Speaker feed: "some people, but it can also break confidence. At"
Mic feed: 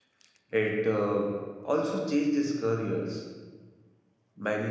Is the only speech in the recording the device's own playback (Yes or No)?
No